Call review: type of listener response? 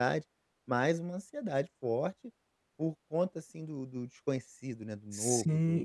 taking over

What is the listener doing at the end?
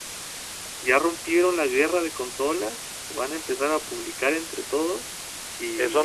taking over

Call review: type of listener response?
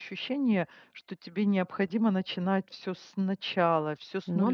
listening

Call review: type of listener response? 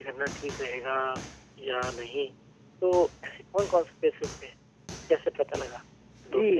taking over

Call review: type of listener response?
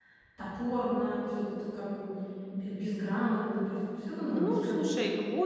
taking over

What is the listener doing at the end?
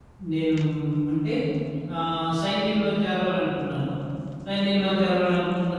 listening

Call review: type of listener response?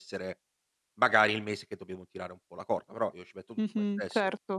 taking over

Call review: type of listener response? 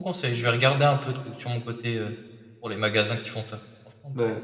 taking over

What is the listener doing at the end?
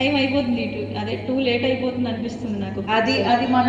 taking over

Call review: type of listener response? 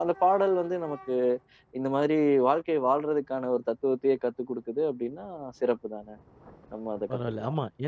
taking over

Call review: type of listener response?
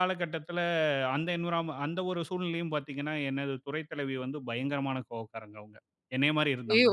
listening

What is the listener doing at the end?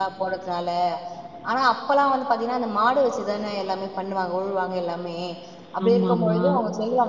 listening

